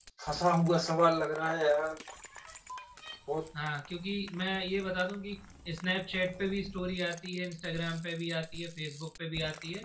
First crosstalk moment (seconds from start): none

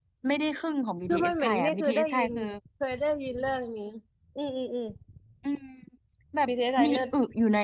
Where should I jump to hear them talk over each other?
1 s

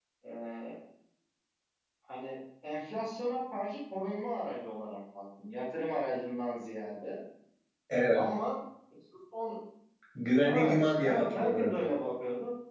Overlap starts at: 10 s

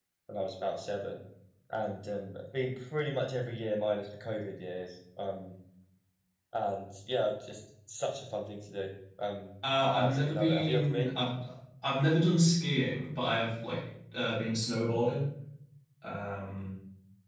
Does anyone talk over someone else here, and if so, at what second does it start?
10 s

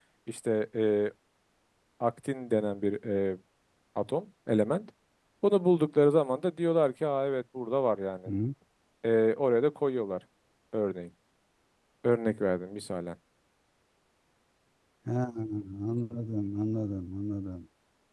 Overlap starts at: none

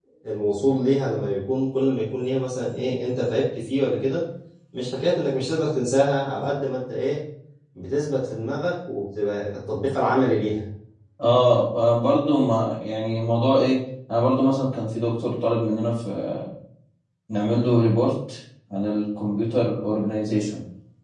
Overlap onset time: none

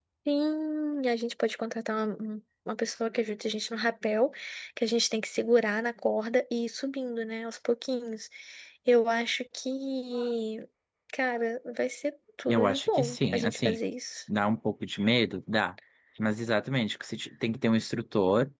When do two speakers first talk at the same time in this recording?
12 s

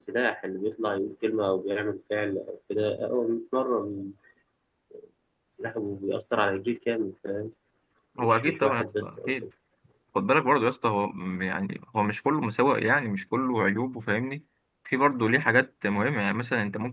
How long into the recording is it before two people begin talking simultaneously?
8 s

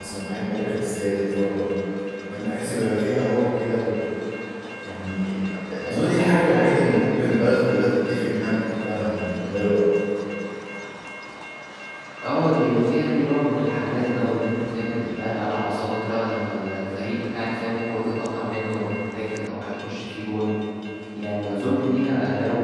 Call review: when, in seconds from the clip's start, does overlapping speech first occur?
none

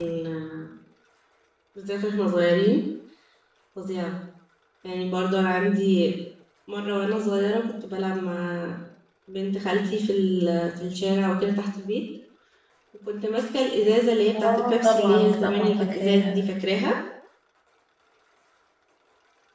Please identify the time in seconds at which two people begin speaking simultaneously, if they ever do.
14 s

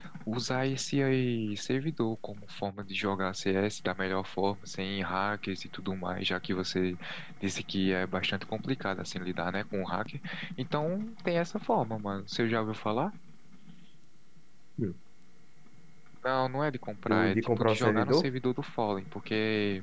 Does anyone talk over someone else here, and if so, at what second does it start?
17 s

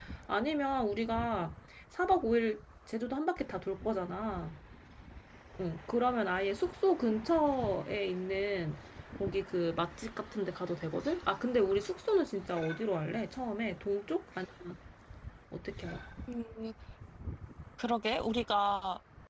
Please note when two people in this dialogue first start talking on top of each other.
none

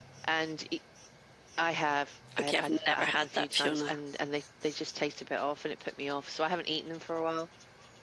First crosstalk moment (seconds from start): 2 s

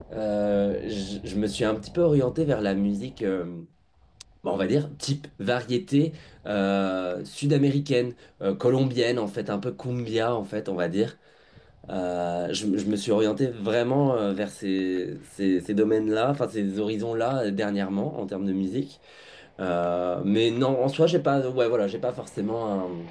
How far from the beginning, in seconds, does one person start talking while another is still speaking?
none

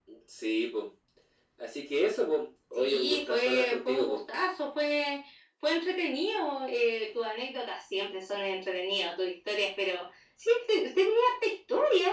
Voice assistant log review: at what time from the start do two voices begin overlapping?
3 s

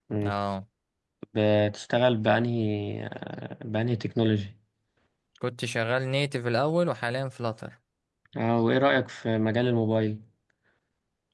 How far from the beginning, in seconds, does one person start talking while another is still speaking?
none

